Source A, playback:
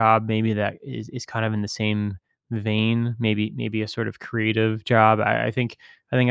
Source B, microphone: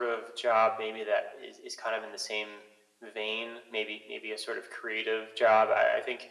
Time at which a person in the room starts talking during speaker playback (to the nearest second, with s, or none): none